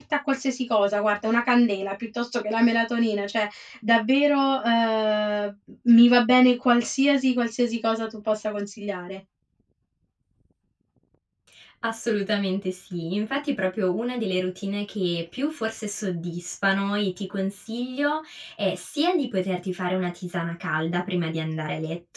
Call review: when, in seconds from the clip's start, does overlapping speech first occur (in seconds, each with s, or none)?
none